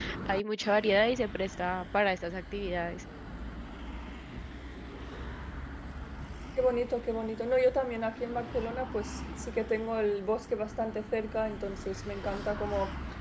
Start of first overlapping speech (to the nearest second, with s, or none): none